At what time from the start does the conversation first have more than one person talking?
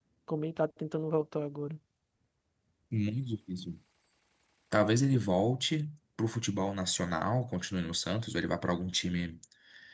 none

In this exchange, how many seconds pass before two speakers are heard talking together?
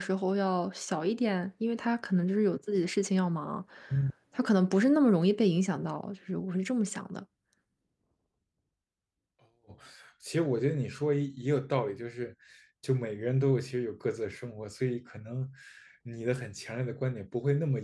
none

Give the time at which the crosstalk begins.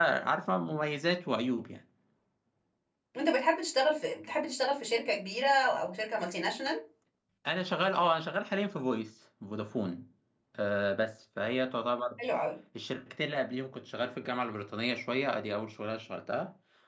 none

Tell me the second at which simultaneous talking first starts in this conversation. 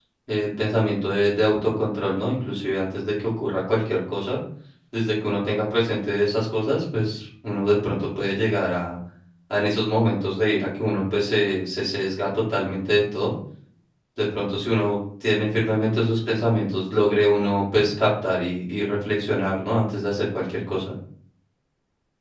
none

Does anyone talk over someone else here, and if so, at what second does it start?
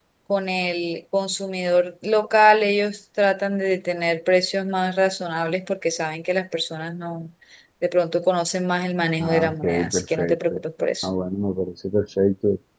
9 s

